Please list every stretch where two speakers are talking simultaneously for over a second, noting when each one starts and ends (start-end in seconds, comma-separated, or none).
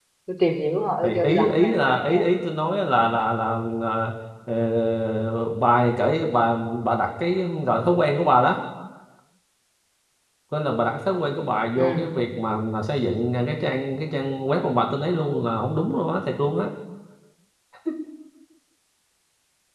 1.0-2.2